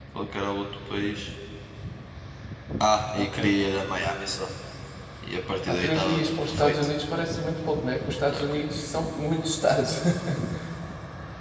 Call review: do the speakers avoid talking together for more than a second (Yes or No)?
No